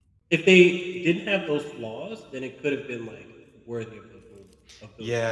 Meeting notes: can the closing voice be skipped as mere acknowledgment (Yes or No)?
No